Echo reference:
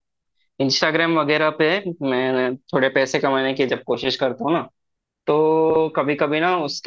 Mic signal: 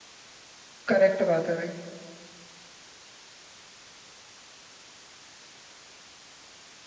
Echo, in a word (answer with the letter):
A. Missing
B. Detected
A